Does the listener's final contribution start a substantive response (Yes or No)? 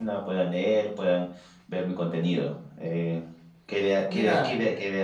No